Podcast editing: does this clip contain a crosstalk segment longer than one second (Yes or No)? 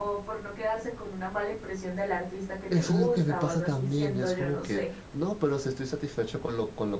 Yes